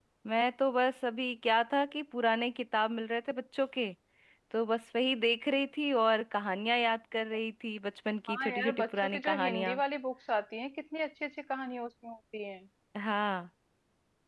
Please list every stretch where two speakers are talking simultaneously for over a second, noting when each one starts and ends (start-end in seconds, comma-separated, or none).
8.3-9.8